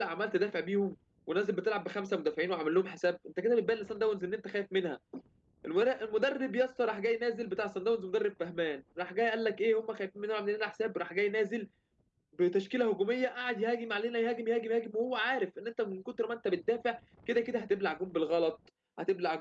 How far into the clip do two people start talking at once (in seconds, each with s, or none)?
none